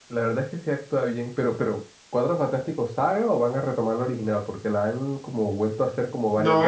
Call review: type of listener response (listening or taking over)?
taking over